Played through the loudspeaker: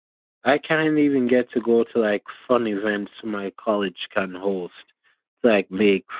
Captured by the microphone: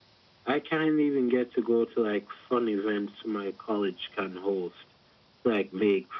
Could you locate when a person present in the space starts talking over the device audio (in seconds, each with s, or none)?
none